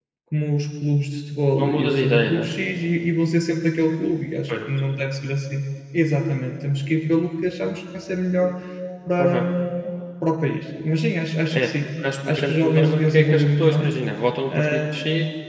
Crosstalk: present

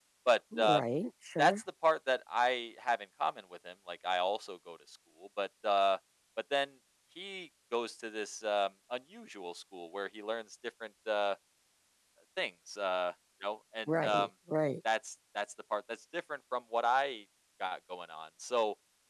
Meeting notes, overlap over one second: none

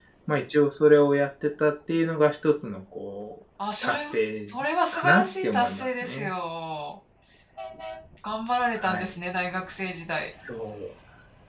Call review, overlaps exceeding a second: present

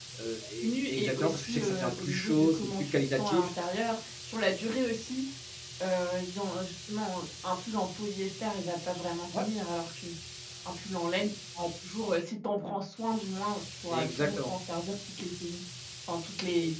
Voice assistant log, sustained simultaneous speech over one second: present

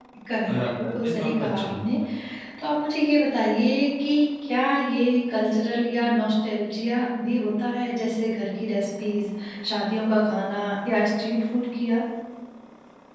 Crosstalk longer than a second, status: present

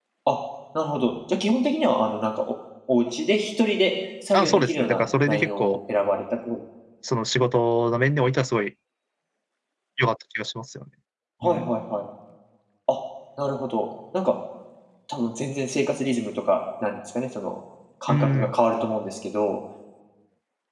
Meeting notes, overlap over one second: present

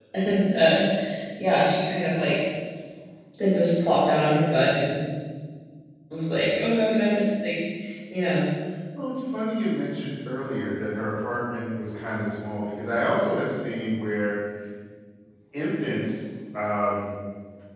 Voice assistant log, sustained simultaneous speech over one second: none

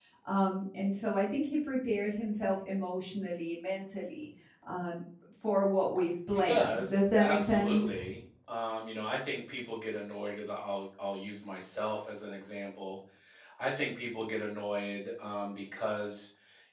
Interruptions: present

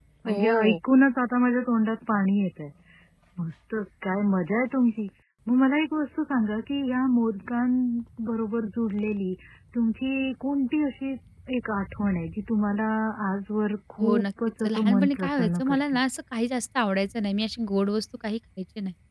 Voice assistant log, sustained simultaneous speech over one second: present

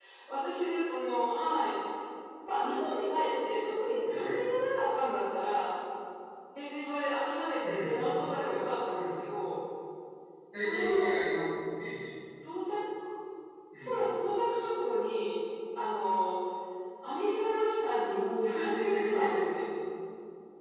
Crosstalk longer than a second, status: present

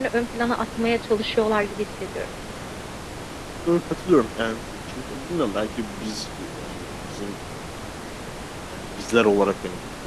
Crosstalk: none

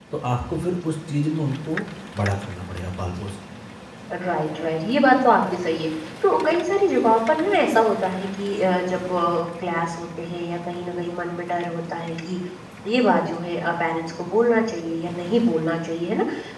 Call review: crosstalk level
none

